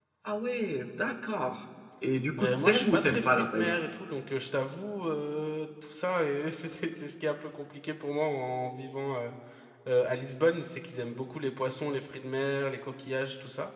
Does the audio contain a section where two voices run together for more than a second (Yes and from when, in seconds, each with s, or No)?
Yes, from 2.4 s